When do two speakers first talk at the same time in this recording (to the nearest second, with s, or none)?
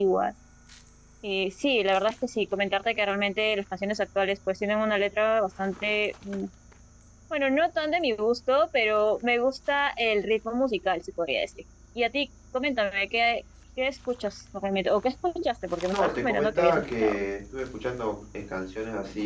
16 s